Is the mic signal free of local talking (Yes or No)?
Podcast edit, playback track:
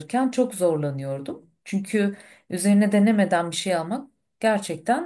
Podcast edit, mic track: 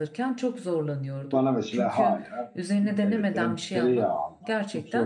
No